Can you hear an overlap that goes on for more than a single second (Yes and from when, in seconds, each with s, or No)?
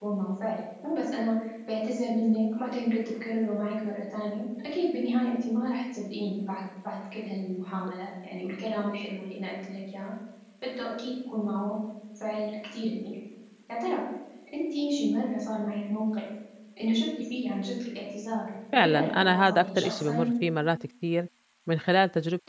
Yes, from 18.7 s